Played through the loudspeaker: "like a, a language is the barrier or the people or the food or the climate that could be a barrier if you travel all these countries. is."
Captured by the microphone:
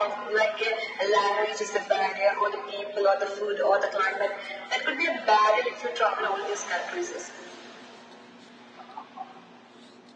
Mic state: echo only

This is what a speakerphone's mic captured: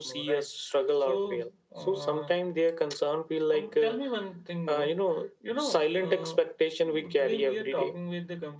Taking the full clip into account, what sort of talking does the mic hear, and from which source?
both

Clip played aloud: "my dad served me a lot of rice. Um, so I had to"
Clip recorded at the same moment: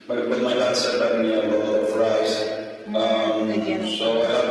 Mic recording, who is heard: both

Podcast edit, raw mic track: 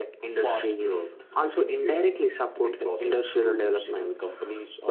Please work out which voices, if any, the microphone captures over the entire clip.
echo only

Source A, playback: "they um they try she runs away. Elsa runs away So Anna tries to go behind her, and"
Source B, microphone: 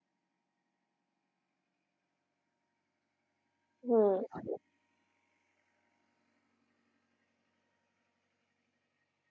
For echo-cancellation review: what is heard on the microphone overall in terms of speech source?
user only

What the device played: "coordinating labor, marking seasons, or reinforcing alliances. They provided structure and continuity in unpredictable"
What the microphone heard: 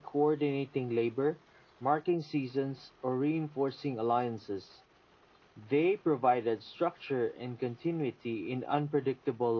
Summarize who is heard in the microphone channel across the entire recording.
echo only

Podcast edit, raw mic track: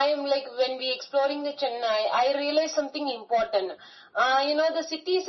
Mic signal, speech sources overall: echo only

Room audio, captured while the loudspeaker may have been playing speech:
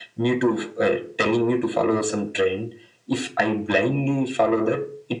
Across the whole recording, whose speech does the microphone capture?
echo only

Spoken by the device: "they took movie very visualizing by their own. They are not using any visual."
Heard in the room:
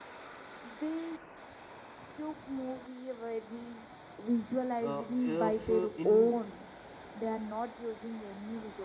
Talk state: both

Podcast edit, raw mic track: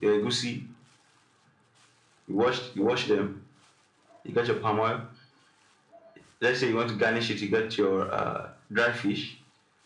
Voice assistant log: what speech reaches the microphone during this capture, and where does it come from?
echo only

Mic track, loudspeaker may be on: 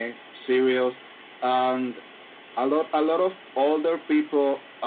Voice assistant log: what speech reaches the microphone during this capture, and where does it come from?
echo only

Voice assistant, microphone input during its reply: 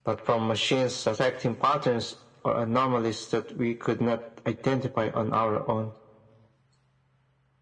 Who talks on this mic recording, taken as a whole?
echo only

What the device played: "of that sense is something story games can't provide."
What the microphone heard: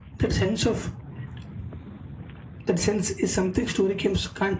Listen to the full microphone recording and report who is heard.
echo only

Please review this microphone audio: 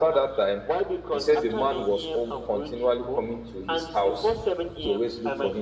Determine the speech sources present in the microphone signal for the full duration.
echo only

